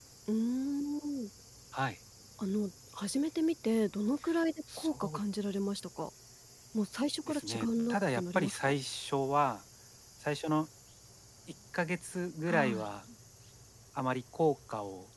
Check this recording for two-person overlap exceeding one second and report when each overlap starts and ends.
7.3-8.7

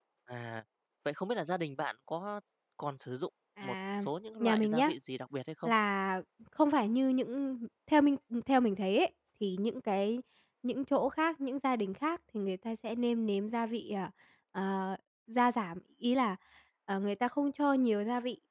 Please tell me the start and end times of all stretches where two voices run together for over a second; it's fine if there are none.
none

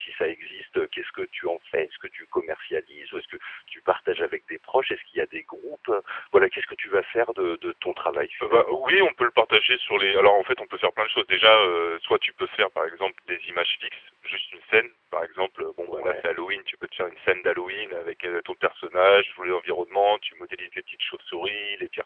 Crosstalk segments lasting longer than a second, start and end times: none

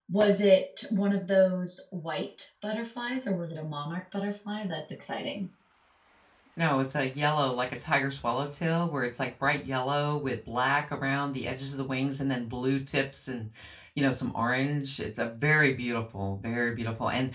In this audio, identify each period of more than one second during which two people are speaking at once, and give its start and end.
none

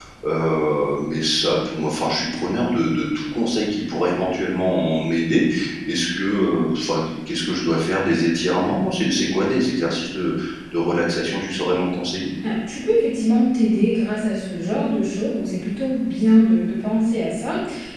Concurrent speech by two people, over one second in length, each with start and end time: none

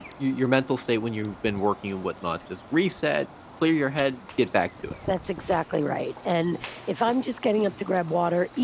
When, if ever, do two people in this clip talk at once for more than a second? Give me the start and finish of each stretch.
none

